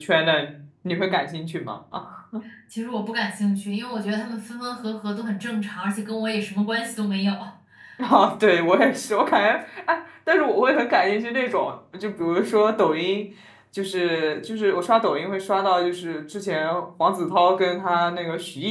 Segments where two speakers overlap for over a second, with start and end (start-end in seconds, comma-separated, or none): none